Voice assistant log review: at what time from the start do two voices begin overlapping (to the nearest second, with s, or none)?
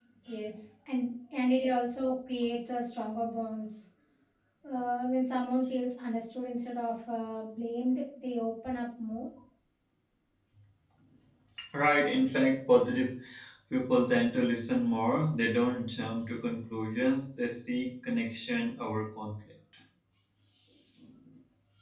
none